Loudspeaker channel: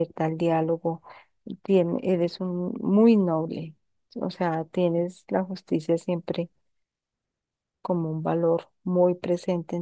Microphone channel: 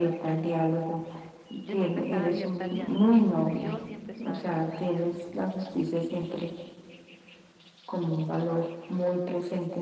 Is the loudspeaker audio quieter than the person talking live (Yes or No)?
No